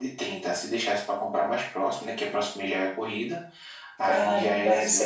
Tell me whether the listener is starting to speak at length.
Yes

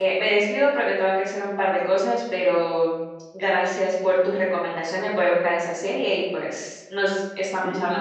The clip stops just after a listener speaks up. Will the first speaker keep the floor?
No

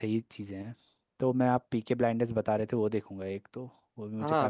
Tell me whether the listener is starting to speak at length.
Yes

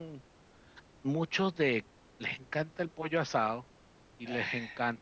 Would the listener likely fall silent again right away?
Yes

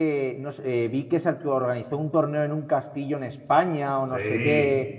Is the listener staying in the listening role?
Yes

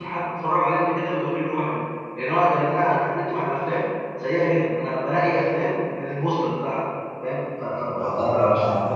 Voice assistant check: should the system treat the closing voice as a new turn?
Yes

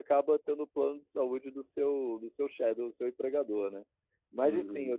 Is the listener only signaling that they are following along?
No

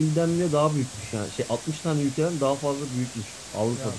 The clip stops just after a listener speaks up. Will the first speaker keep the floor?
Yes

